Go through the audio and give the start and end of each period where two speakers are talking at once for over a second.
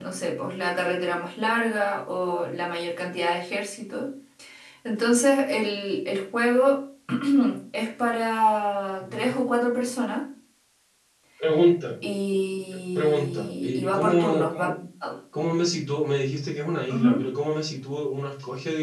13.0-14.7

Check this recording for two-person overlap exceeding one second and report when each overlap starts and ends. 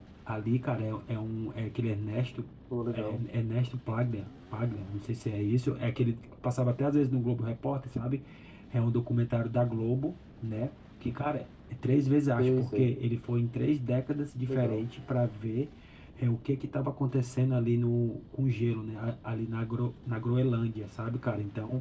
none

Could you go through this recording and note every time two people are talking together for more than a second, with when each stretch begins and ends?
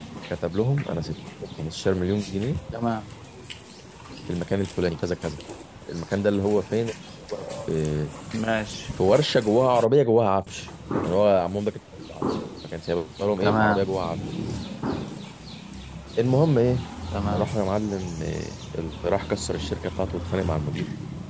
none

